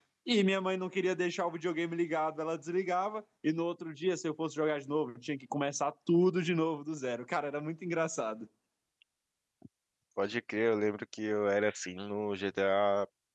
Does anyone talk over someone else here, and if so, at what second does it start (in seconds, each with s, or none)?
none